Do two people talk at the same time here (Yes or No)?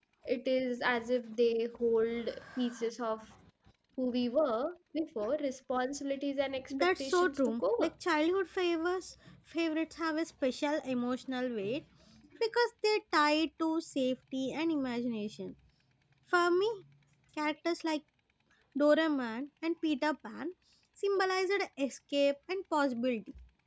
Yes